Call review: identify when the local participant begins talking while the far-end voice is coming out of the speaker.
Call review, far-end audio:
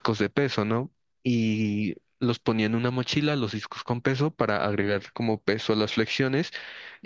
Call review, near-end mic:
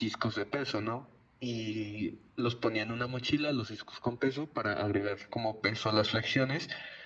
none

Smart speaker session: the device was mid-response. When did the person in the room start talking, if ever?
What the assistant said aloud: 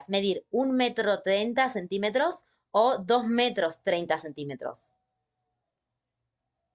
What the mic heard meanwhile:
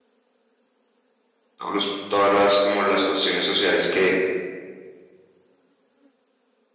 1.6 s

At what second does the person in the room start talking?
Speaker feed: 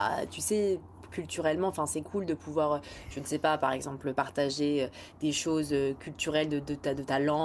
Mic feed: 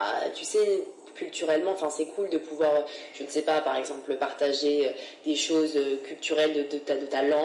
none

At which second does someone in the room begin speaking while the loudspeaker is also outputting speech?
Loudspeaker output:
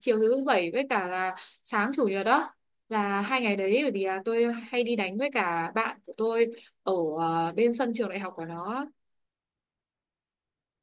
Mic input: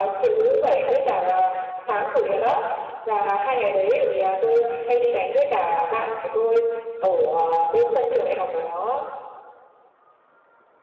none

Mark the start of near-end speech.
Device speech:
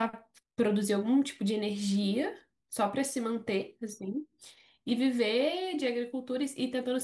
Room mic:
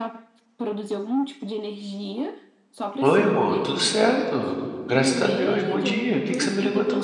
3.0 s

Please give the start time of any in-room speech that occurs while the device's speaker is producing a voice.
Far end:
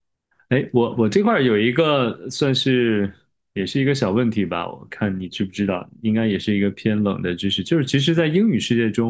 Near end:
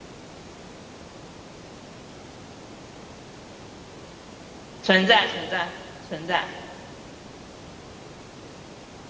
4.8 s

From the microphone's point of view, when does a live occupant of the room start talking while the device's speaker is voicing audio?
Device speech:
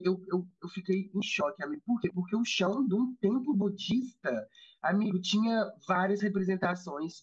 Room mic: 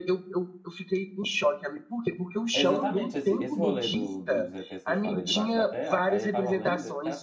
2.5 s

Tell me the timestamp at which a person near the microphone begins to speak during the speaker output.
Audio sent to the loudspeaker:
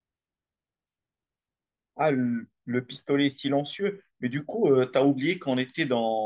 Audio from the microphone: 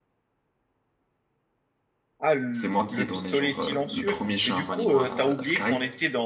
2.5 s

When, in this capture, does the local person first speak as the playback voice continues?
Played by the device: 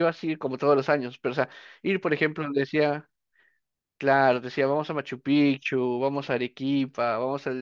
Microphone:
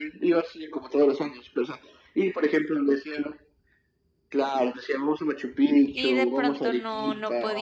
5.9 s

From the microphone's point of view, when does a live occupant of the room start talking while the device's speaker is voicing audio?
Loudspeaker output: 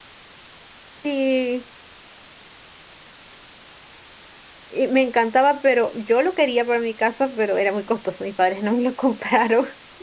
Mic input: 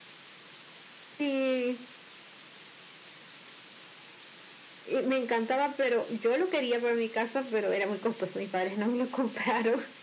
none

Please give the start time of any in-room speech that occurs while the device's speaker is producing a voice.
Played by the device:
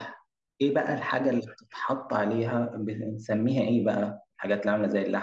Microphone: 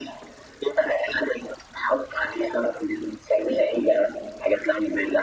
none

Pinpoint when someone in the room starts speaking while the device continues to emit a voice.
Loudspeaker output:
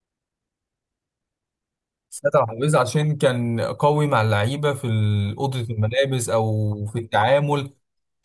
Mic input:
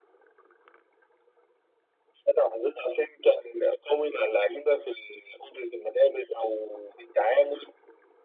none

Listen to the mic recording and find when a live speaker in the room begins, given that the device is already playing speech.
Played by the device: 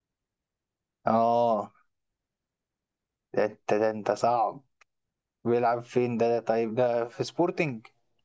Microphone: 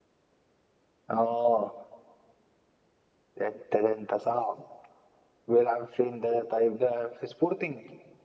none

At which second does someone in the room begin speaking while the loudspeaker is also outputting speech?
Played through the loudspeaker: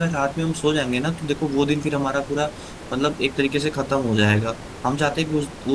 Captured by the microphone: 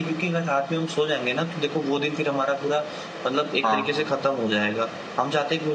3.6 s

